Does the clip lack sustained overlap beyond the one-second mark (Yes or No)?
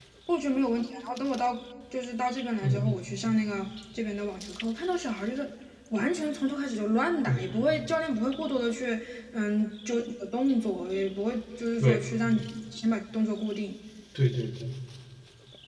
Yes